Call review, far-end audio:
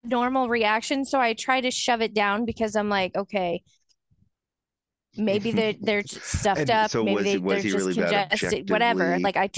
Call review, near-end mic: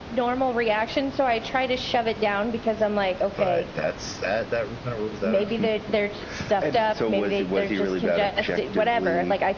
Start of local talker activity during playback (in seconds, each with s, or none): 3.4 s